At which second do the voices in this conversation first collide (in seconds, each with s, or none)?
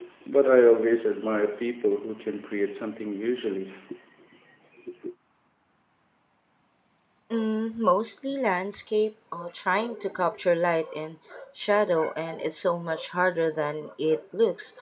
none